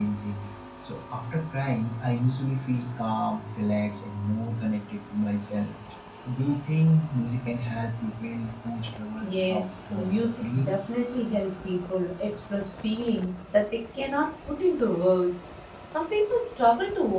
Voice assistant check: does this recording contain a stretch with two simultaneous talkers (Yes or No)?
Yes